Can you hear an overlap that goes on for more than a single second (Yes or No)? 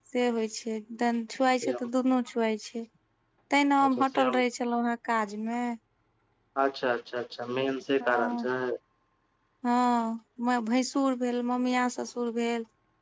No